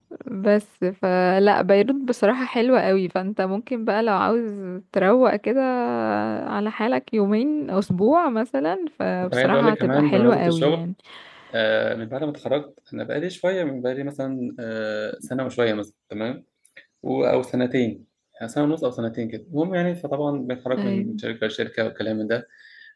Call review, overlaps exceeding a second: present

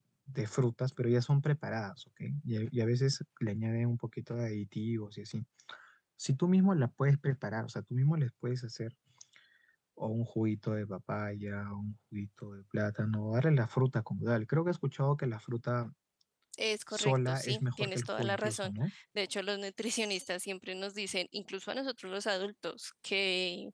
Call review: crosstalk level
present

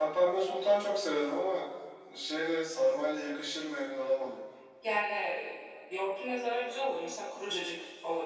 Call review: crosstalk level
none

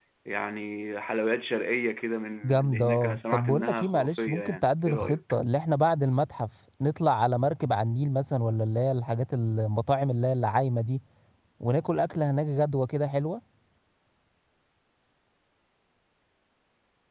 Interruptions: present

